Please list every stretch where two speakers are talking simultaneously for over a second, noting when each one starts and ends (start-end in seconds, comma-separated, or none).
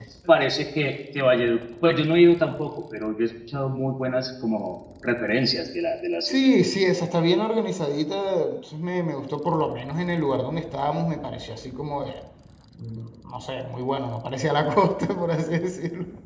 none